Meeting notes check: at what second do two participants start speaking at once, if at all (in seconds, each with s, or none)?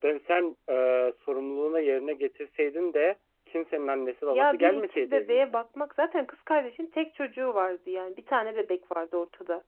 4.3 s